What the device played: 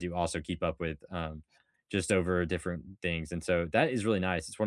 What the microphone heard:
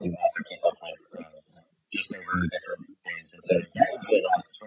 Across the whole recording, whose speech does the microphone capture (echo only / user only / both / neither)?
echo only